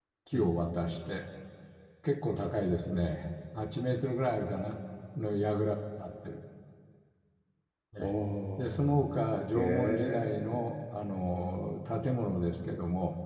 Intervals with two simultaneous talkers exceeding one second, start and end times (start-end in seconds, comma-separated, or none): 9.5-10.7